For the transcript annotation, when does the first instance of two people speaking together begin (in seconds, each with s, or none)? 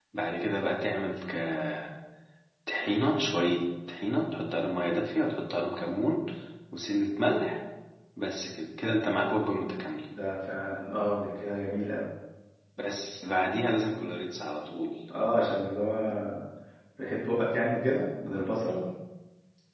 none